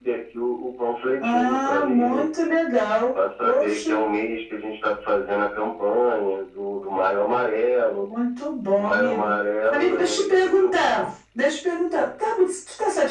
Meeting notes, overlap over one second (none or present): present